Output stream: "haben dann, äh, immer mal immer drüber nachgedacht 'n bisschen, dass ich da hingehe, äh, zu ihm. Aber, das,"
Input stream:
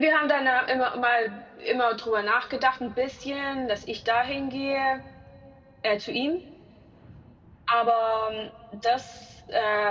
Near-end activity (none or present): none